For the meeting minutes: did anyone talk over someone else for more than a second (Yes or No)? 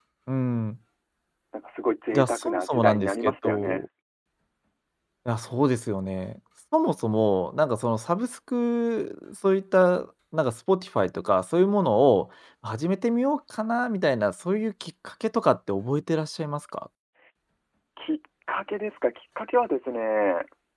Yes